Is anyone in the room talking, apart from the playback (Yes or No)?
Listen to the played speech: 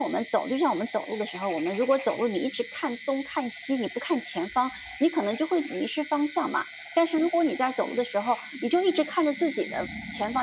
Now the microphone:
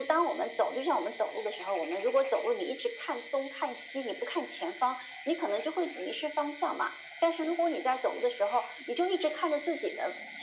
No